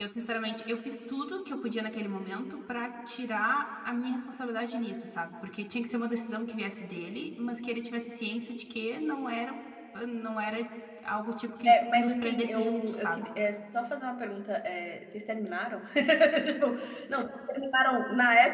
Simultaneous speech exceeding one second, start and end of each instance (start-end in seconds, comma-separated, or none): 11.6-13.2